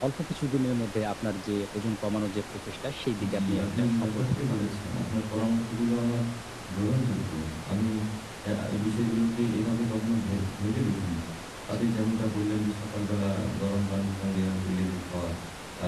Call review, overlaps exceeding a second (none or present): present